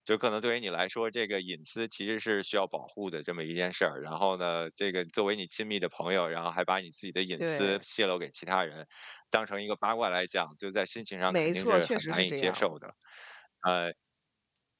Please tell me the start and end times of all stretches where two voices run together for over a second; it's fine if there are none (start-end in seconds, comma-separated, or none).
11.3-12.6